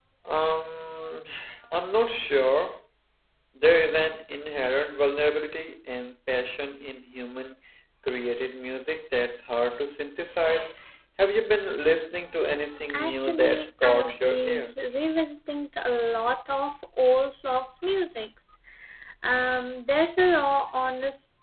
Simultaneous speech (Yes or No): Yes